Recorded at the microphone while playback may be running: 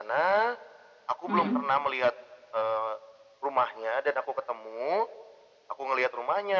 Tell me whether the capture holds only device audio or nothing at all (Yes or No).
No